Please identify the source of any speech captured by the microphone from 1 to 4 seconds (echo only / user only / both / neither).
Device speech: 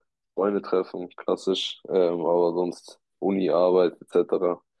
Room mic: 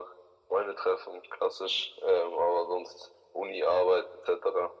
echo only